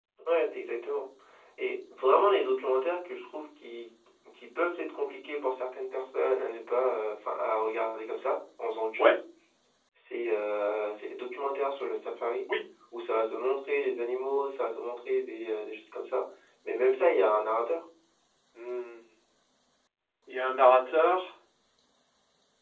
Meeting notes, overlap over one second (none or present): none